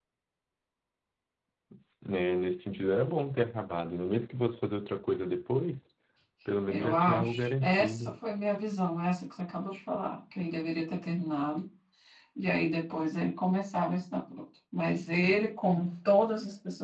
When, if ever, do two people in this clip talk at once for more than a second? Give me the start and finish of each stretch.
6.7-8.1

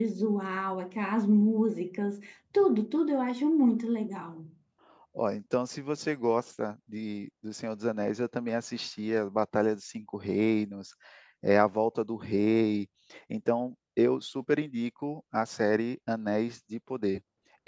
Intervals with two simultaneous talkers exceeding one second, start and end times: none

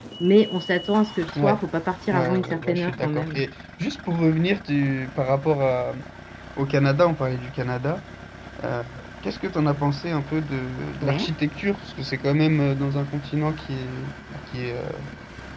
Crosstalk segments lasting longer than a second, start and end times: 2.1-3.4

